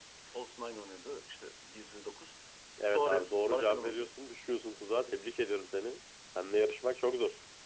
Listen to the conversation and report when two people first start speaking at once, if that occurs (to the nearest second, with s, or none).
3 s